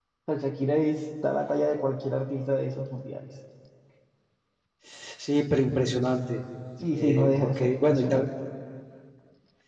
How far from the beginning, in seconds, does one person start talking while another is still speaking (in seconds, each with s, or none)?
6.9 s